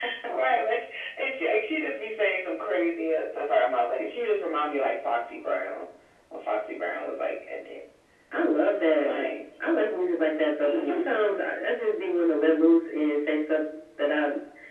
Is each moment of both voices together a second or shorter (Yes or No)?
Yes